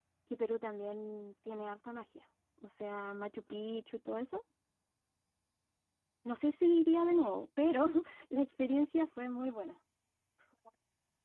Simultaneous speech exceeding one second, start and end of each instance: none

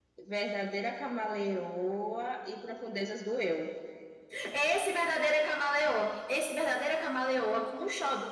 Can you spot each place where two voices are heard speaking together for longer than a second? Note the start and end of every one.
none

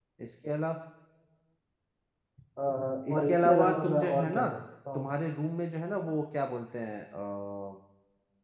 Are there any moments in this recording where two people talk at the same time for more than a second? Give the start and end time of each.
3.1-4.5

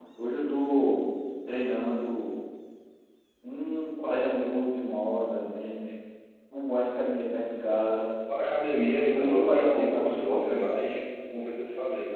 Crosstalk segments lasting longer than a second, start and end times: 9.1-10.6

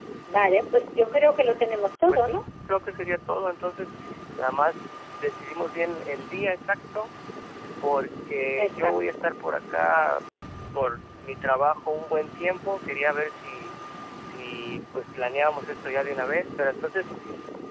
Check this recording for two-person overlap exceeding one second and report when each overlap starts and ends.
none

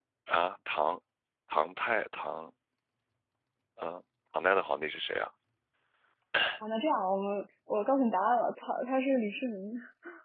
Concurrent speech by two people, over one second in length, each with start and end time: none

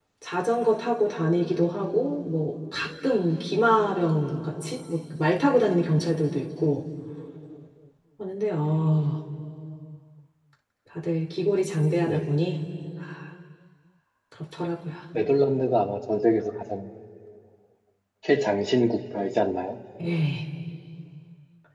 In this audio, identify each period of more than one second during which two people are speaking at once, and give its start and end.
none

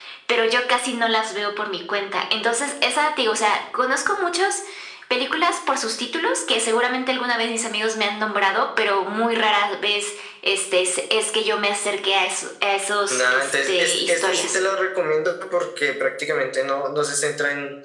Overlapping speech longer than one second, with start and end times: 13.1-14.6

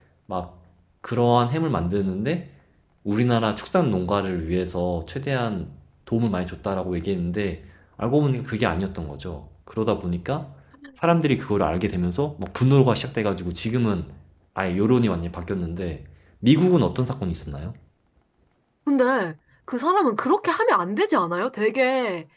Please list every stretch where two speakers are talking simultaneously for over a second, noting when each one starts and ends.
none

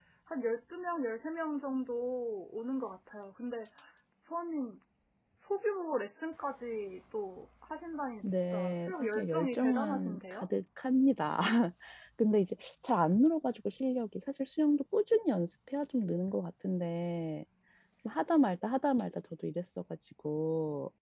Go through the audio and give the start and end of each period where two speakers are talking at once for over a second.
8.2-10.5

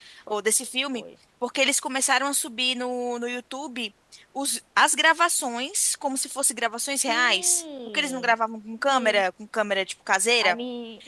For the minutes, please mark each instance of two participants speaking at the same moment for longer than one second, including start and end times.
7.1-8.3

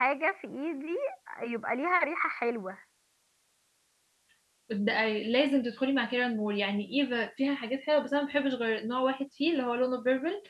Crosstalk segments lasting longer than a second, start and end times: none

